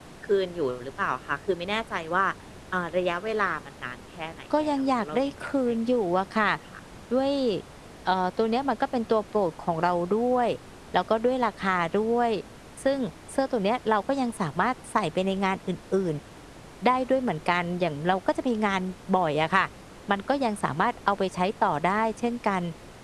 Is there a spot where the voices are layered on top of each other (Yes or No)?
Yes